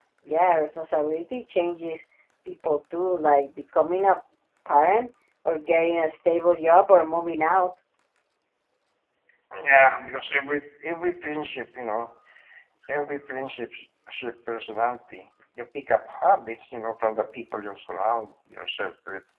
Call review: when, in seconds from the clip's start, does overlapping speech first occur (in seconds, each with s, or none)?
none